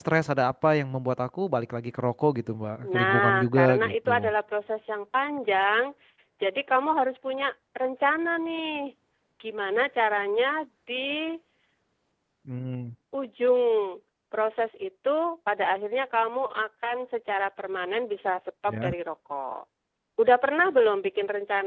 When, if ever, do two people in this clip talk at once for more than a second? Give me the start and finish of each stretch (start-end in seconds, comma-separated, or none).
2.9-4.3